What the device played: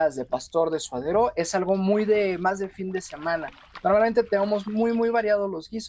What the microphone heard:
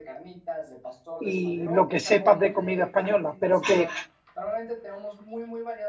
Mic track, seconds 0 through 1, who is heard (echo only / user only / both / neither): echo only